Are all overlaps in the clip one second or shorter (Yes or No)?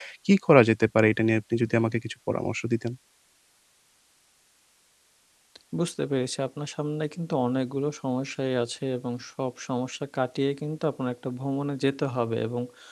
Yes